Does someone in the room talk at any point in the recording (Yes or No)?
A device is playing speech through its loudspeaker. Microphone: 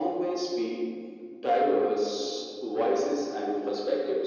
No